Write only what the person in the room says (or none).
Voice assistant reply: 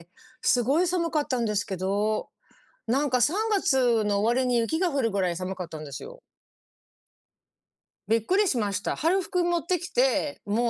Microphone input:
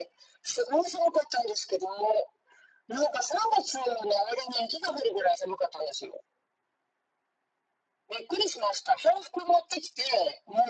none